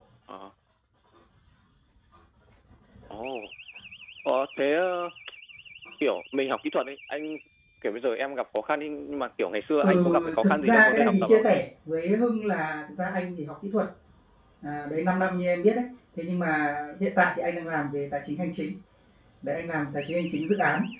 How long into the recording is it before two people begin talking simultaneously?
10 s

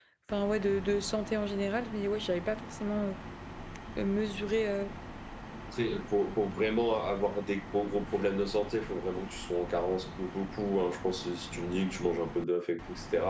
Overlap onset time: none

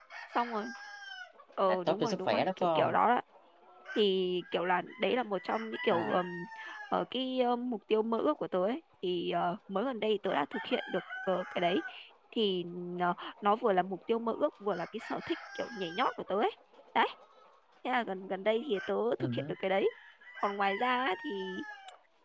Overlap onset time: 2 s

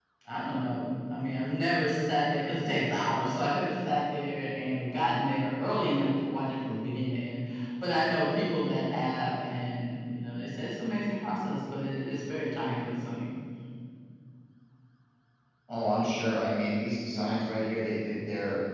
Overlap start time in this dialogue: none

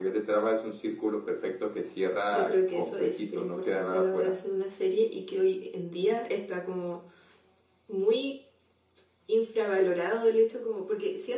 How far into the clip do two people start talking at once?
2 s

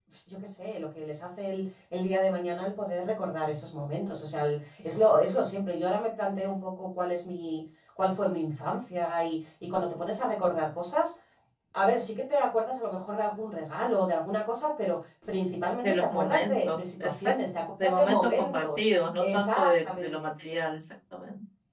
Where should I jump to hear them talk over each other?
16 s

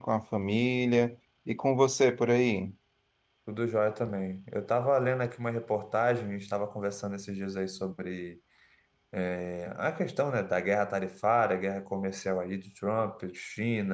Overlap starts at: none

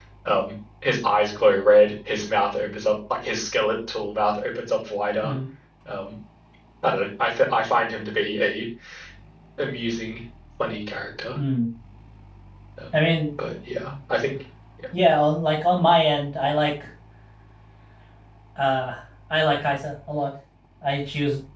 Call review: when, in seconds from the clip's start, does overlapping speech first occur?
none

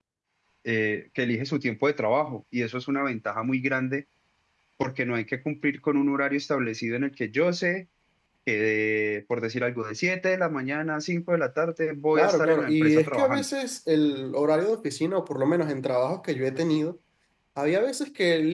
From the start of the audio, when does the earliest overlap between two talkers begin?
12 s

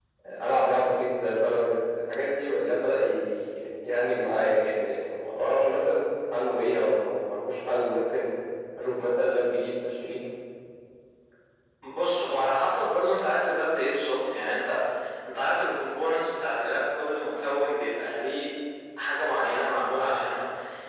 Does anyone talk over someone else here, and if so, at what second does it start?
none

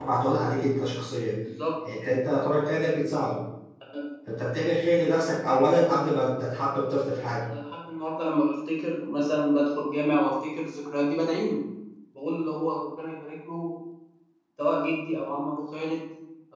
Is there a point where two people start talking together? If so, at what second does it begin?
none

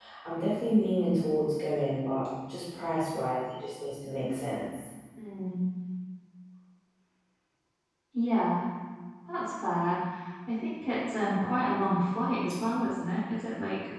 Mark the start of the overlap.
none

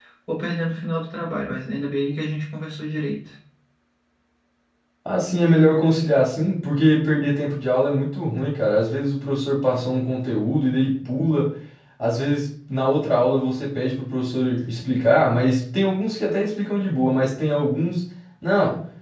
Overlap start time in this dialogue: none

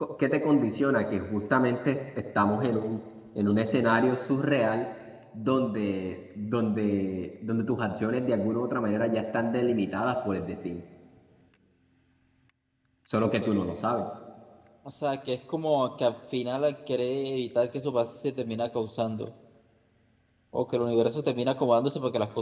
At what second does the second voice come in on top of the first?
none

